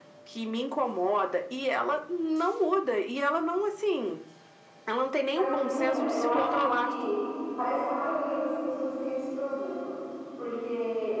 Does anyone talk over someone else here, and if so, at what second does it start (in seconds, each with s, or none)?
5.3 s